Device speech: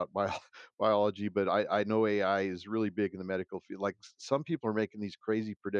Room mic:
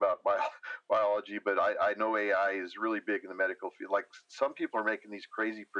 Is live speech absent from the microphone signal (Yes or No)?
Yes